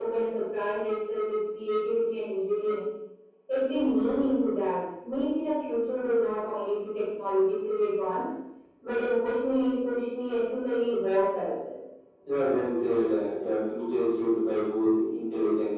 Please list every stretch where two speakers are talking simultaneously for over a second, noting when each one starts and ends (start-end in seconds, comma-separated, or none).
none